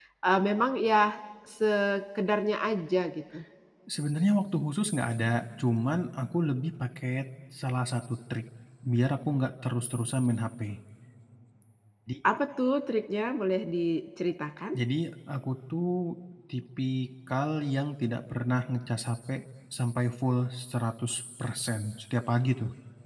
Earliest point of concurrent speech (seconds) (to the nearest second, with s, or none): none